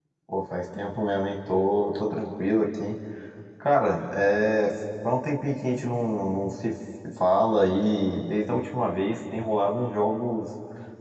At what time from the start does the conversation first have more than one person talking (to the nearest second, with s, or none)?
none